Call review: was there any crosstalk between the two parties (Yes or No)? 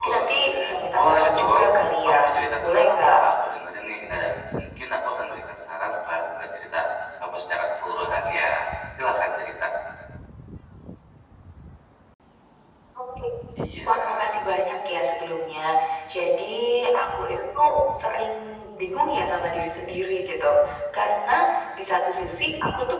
Yes